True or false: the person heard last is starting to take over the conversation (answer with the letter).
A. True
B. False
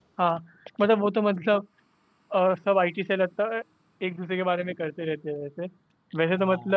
B